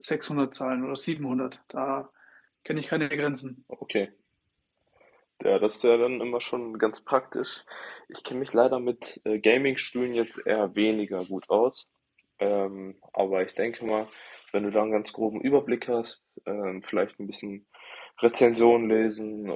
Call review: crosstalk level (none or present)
none